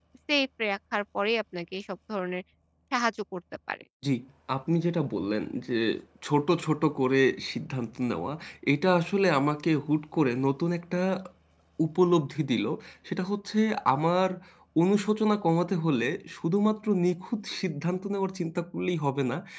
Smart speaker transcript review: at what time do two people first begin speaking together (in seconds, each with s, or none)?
none